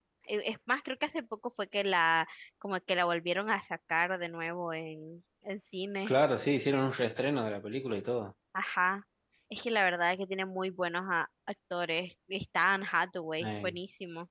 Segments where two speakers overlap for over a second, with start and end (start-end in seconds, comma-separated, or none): none